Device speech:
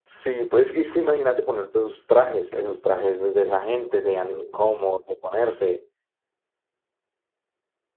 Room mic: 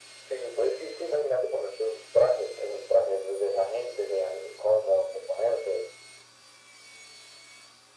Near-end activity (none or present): none